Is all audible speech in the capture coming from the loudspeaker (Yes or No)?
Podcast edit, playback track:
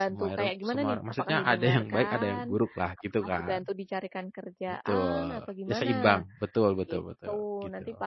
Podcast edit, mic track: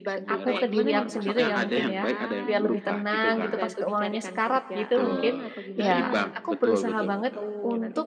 No